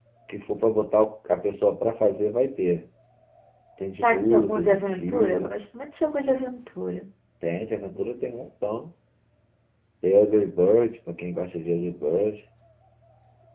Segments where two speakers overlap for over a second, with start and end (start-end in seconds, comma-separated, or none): 4.0-5.5